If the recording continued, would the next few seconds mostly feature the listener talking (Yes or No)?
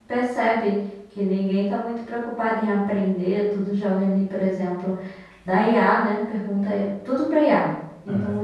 No